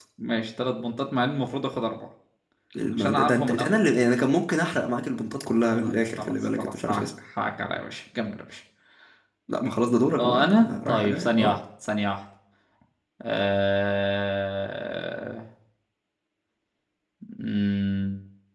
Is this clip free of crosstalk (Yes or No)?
No